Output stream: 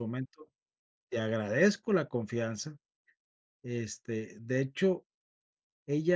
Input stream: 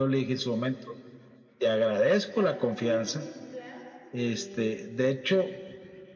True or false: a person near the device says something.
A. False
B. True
B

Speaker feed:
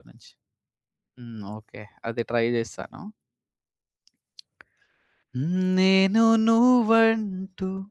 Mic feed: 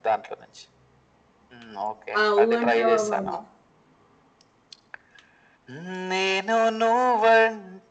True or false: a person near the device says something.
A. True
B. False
A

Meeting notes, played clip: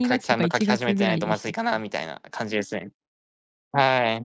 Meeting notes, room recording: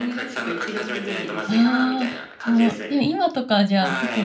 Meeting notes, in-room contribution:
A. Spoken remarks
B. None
A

